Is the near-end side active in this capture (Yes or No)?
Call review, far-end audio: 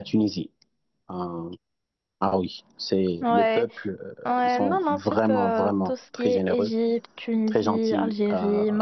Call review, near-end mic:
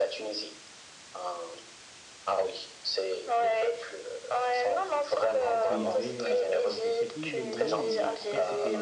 Yes